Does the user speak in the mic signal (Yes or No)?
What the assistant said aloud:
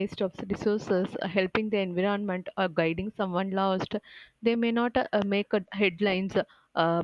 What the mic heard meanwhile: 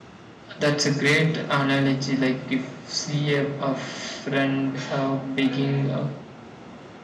Yes